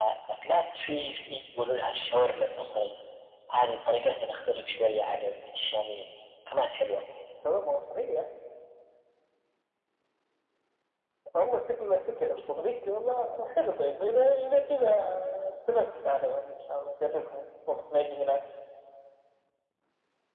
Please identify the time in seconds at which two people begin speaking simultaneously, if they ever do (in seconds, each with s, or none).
none